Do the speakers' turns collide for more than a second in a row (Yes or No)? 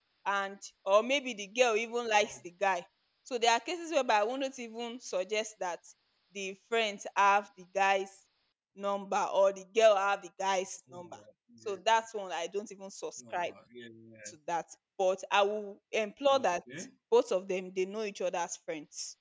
No